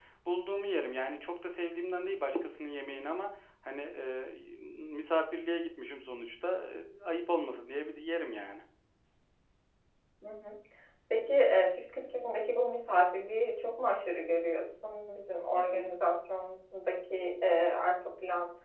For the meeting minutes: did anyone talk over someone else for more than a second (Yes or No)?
No